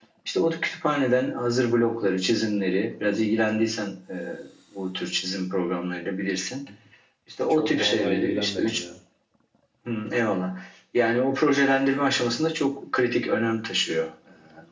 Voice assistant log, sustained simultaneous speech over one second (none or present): present